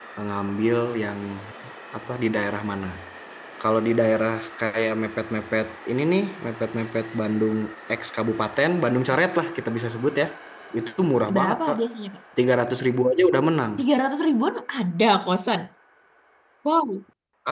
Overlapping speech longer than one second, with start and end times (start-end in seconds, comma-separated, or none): none